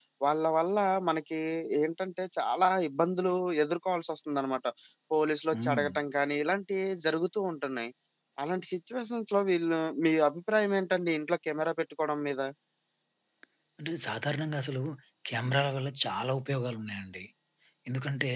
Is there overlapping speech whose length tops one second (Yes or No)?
No